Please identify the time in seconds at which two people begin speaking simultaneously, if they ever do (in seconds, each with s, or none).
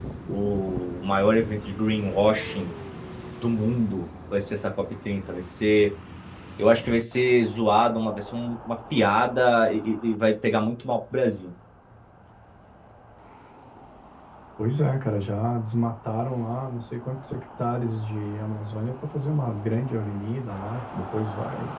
none